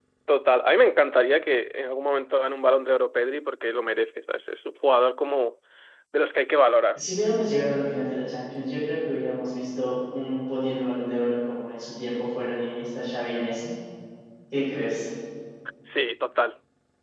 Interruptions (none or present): none